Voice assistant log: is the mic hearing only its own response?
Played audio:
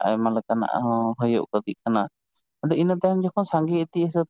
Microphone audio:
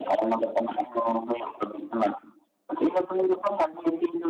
Yes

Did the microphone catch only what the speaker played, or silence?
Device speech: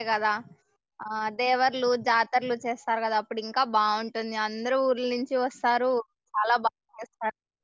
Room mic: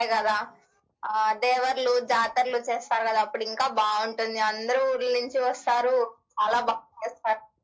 Yes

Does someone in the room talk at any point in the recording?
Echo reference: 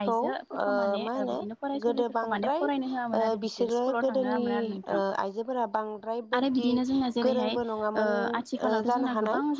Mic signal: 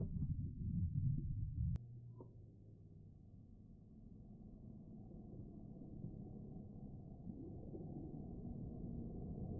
No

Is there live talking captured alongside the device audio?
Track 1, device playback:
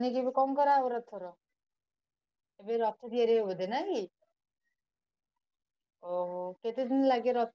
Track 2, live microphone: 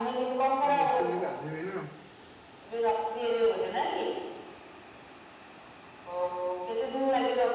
Yes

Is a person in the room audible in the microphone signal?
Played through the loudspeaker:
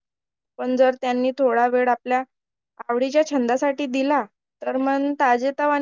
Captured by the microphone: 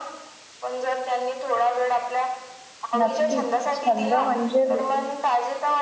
Yes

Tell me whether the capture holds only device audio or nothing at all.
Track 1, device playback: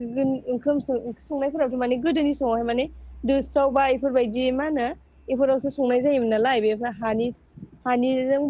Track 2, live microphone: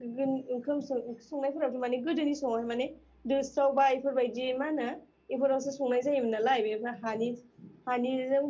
Yes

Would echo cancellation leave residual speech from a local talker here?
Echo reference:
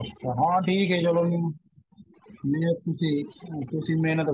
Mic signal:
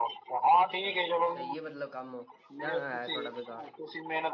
Yes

